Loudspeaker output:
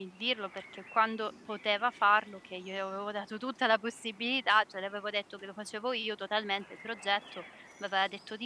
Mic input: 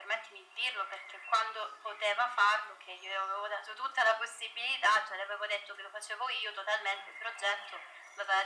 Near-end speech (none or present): none